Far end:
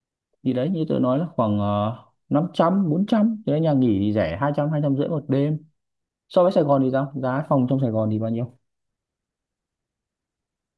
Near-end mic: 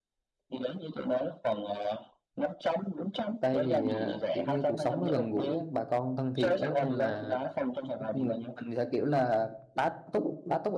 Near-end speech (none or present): present